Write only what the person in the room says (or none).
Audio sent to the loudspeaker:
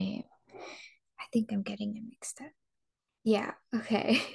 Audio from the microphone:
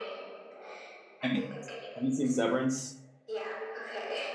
have, you, have you seen Severance?